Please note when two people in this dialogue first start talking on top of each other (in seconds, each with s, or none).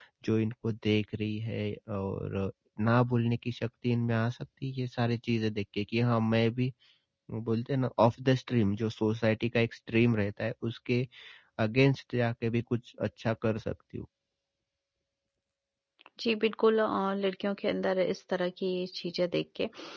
none